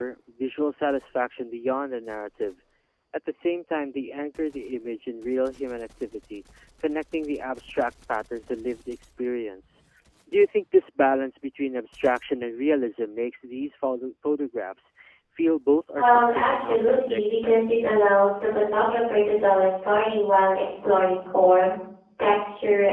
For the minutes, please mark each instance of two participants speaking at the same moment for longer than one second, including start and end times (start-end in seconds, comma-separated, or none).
16.0-17.2